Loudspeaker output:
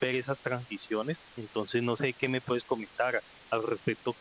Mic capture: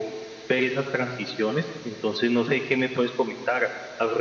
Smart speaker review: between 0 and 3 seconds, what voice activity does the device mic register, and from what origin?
echo only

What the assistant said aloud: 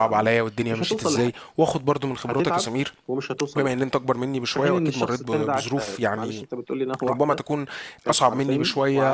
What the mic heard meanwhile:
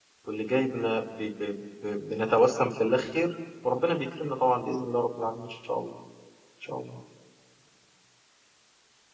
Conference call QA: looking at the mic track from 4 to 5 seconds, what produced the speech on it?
user only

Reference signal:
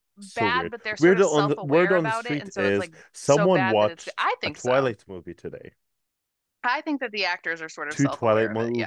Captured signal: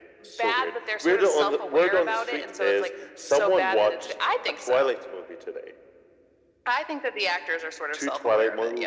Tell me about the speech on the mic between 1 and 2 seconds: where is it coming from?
echo only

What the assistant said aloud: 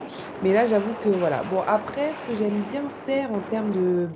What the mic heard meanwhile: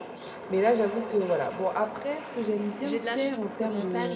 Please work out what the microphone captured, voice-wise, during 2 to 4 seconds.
both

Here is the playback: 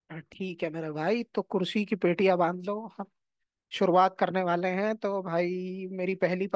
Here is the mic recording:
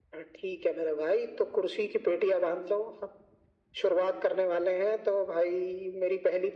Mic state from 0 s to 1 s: echo only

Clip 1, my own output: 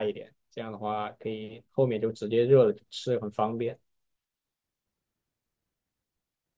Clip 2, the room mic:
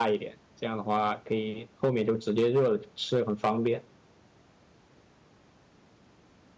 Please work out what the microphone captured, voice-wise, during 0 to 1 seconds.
echo only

